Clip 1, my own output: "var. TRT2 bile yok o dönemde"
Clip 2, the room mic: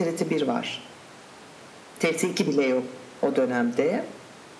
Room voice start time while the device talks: none

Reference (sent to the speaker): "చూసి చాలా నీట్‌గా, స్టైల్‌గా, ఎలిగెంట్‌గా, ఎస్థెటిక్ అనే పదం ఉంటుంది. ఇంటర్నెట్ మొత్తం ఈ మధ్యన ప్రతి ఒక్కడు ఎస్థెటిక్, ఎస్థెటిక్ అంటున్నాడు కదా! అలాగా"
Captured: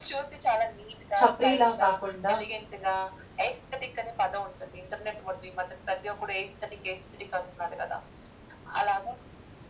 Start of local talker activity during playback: 1.2 s

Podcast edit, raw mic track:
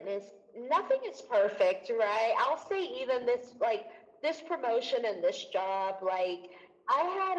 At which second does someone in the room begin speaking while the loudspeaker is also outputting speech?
none

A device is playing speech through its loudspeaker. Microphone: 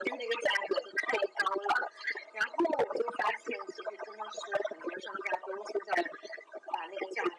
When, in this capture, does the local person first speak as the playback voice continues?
none

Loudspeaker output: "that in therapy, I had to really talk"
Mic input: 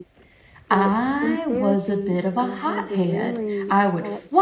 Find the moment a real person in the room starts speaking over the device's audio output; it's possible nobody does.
0.7 s

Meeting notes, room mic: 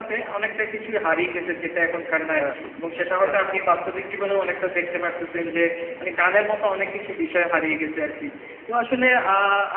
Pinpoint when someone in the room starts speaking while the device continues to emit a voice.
2.2 s

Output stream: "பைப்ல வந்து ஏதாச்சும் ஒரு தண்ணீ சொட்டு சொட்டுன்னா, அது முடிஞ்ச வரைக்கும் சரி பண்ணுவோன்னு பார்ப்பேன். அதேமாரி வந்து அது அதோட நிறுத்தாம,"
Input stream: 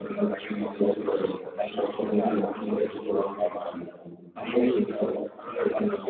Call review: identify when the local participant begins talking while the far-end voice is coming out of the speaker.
none

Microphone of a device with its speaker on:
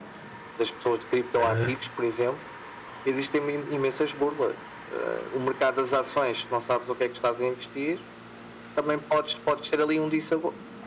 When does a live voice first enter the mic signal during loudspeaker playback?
1.4 s

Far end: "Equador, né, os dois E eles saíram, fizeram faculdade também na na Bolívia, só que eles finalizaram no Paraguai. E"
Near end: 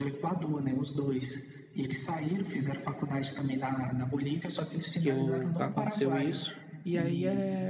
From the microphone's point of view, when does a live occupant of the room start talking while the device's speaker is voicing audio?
5.0 s

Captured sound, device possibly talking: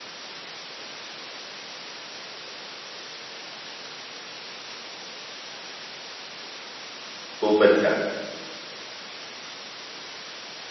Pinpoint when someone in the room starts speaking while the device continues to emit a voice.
7.4 s

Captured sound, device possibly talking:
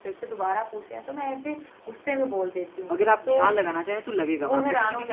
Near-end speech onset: 2.9 s

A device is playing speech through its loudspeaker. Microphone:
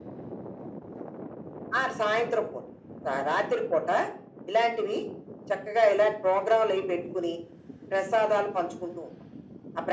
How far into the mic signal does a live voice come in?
none

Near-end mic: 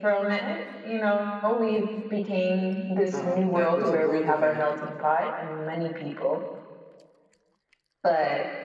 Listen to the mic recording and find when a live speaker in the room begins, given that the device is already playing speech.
3.1 s

